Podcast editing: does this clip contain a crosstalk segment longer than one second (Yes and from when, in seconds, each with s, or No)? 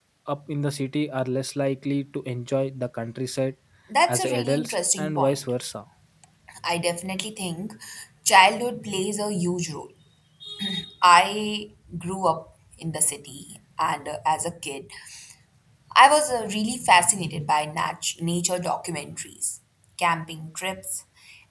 Yes, from 4.1 s